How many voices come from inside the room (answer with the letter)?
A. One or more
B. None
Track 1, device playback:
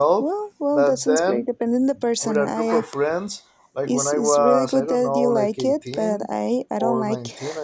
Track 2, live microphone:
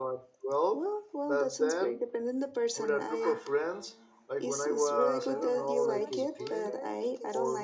A